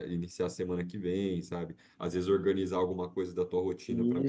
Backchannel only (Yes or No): Yes